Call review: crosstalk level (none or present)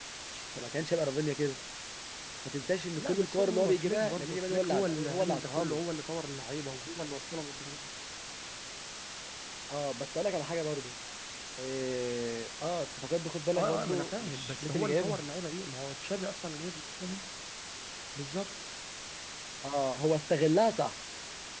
present